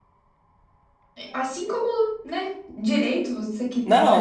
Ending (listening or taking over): taking over